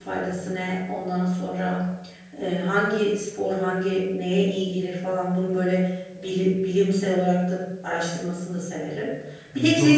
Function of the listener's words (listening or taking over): listening